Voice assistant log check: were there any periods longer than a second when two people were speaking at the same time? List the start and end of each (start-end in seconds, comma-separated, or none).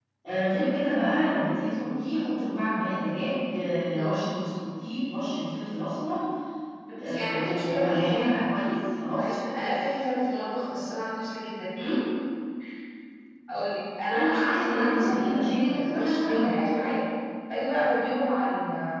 7.0-8.3, 14.1-16.4